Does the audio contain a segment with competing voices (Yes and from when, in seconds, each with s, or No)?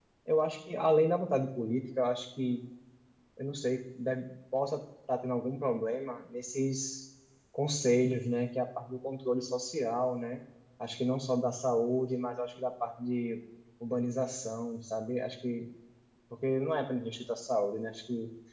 No